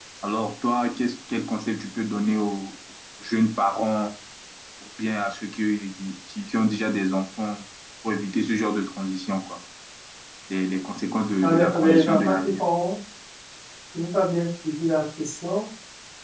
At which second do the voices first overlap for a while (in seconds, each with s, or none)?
11.4 s